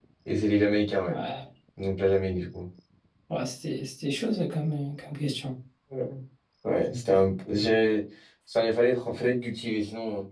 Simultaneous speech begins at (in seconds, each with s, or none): none